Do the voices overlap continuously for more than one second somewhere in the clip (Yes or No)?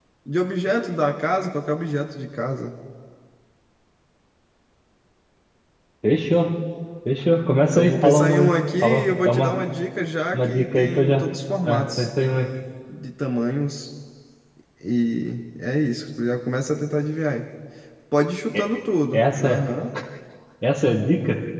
Yes